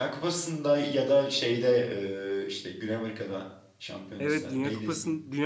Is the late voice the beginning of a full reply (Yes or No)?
Yes